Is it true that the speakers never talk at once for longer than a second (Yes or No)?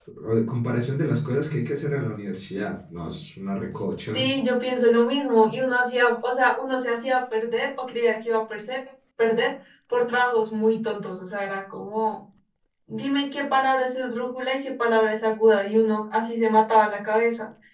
Yes